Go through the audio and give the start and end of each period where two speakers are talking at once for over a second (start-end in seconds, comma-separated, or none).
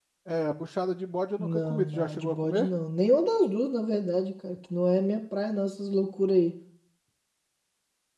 1.4-2.7